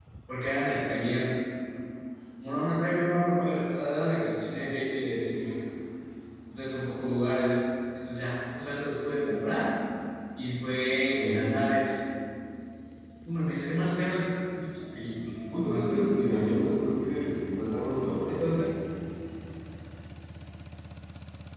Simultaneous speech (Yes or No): Yes